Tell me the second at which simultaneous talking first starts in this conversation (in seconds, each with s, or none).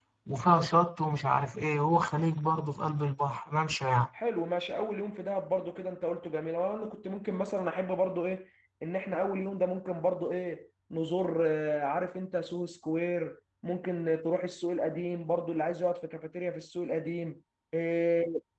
none